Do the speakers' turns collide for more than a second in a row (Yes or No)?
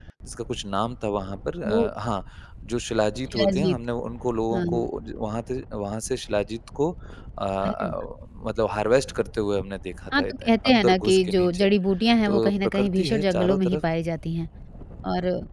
Yes